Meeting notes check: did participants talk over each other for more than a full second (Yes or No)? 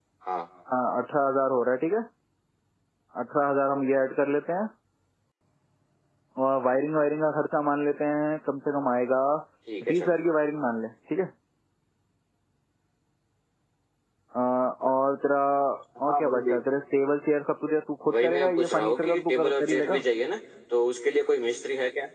Yes